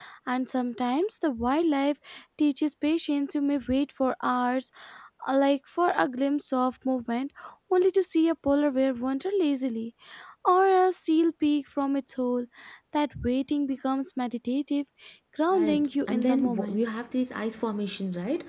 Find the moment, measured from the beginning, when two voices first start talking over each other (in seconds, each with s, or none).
15.5 s